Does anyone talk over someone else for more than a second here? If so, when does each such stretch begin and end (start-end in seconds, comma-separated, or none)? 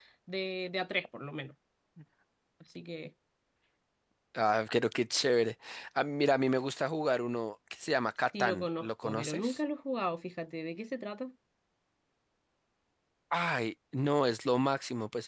8.4-9.6